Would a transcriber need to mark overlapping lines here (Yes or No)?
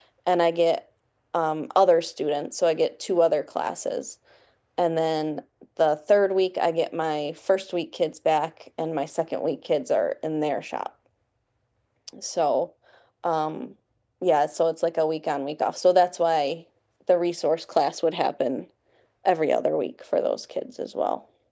No